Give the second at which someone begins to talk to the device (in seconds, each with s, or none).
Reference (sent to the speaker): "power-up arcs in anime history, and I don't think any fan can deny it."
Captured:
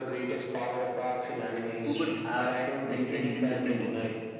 1.8 s